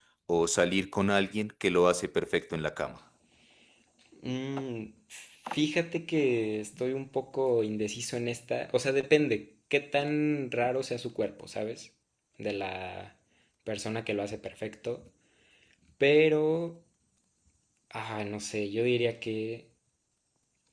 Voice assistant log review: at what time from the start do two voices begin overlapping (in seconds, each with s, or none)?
none